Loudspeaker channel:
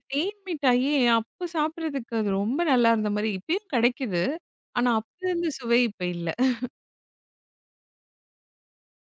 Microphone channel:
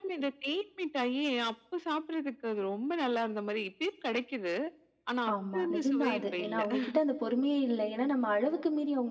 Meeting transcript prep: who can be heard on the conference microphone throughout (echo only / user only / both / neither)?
both